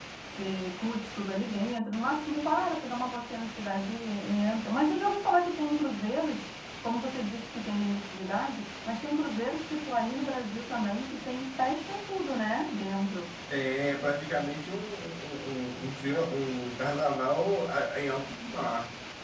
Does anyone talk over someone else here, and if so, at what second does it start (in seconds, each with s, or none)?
none